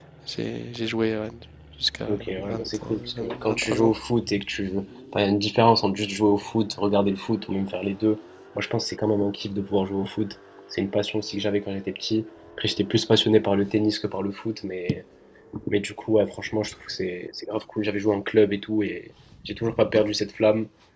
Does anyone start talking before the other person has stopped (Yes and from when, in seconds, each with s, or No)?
Yes, from 2.1 s